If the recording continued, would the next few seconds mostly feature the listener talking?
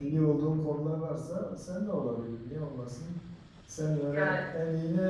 No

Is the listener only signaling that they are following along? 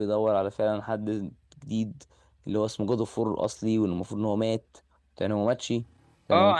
No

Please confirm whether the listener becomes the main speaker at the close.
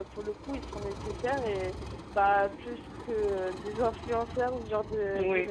Yes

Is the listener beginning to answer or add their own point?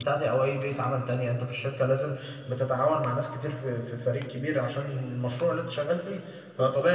No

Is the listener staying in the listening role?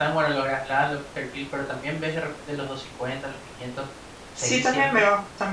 No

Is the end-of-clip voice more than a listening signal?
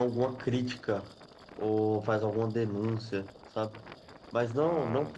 No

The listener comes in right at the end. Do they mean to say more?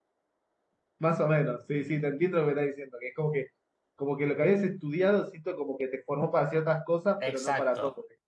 Yes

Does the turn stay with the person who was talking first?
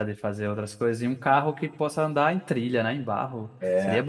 No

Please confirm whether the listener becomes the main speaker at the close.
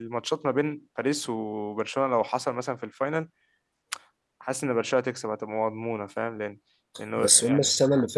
Yes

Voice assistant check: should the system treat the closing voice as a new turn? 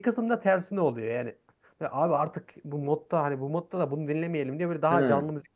No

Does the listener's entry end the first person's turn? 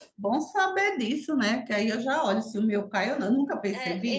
Yes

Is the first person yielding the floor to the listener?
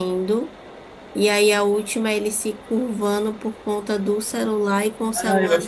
Yes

